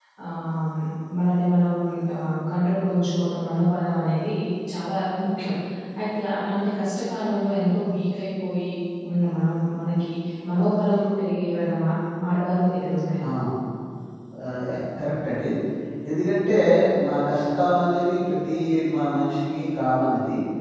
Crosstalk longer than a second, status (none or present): none